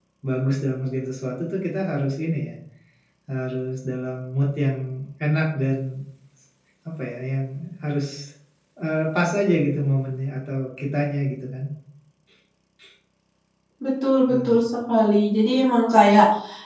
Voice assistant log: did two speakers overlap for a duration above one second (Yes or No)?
No